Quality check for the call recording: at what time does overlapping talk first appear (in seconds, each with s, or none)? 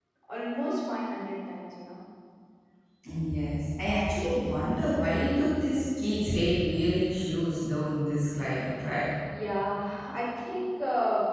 none